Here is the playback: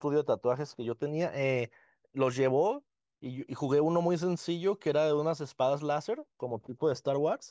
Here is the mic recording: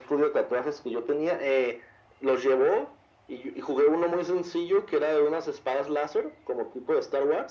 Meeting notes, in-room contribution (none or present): none